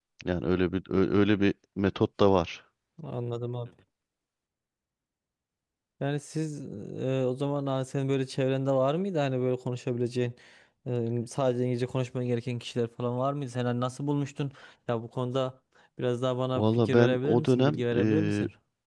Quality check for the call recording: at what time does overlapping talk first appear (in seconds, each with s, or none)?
16.6 s